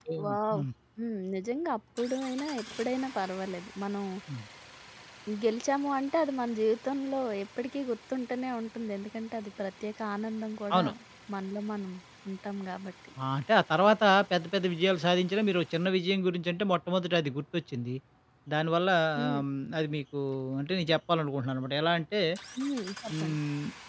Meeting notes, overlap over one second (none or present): none